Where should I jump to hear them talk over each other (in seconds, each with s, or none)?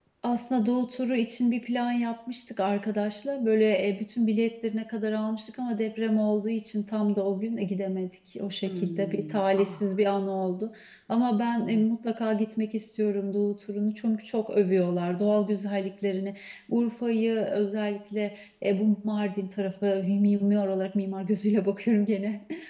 8.7 s